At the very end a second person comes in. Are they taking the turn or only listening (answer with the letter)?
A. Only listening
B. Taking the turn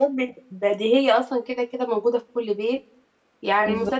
A